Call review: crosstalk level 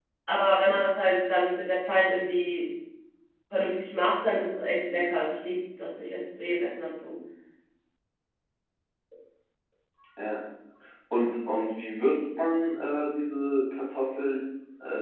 none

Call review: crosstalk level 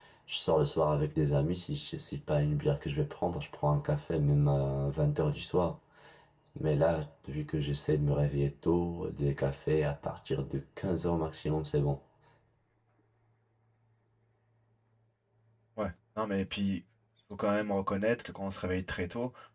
none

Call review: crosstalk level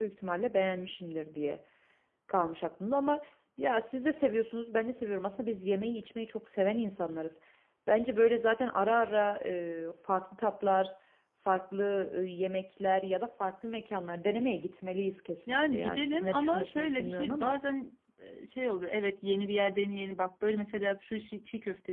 present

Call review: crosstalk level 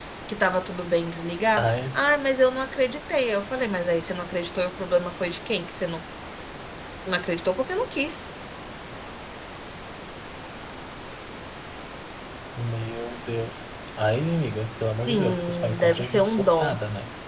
present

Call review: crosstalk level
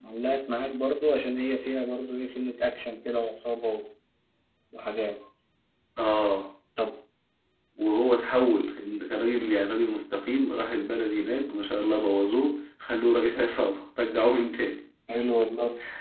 none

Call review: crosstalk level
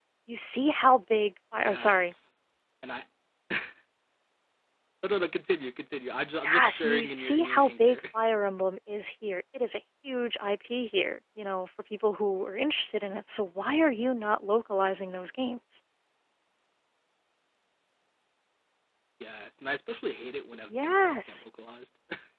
present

